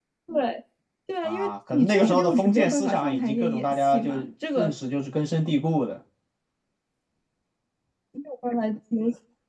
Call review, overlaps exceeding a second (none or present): present